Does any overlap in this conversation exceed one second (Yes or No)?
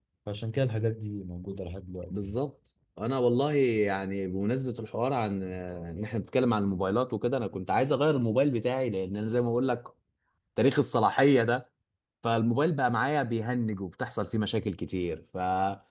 No